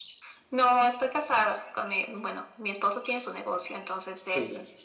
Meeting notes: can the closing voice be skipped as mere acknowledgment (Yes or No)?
Yes